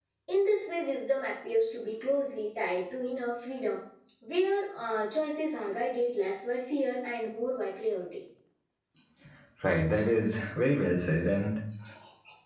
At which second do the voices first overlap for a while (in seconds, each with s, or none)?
none